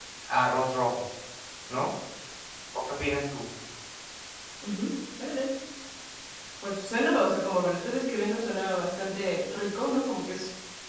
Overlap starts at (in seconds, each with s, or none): none